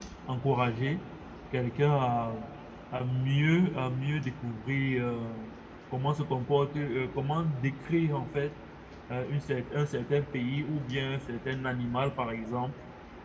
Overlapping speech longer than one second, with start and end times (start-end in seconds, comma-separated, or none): none